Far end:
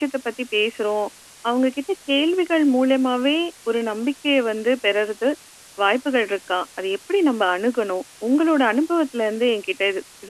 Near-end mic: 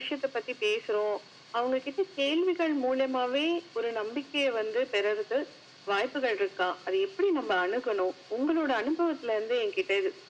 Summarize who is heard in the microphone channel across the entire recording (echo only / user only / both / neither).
echo only